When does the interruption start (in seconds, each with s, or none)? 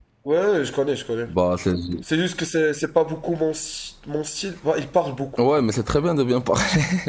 none